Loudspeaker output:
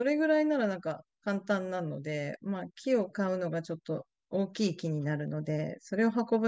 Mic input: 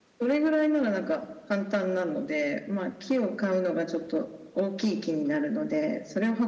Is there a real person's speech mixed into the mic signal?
No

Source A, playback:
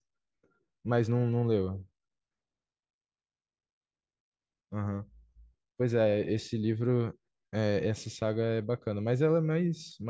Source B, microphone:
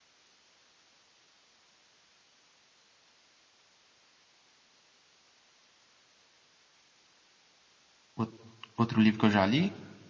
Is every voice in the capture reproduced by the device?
No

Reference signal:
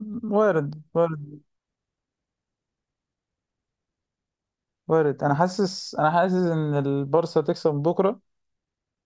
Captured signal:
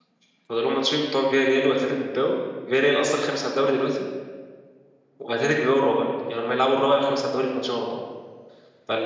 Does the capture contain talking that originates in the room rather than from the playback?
Yes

